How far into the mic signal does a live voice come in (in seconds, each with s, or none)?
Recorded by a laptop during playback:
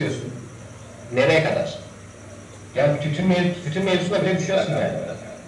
4.0 s